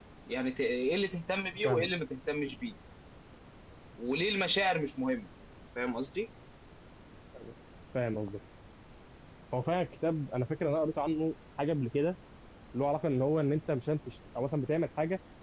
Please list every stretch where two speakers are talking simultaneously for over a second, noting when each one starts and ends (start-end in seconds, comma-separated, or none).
none